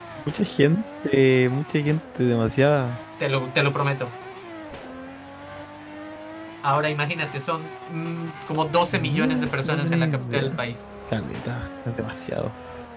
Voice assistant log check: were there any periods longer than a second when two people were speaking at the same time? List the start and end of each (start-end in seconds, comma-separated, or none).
8.9-10.6